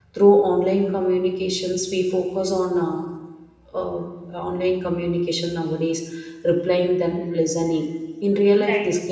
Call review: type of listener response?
listening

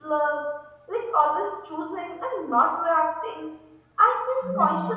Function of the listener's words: listening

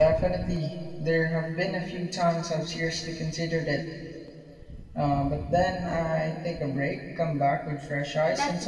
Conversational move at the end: taking over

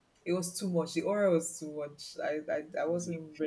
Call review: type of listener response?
listening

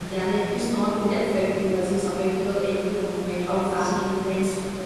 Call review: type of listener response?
listening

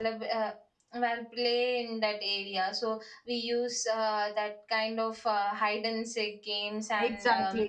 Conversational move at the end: taking over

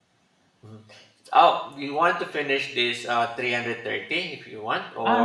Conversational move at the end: taking over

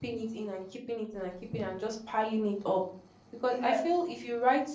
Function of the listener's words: listening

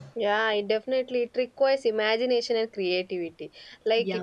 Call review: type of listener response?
listening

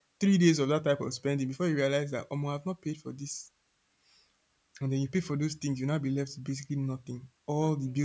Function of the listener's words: listening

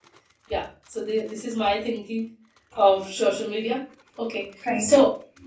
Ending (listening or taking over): listening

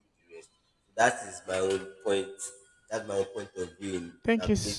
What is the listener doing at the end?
taking over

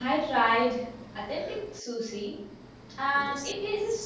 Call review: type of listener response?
listening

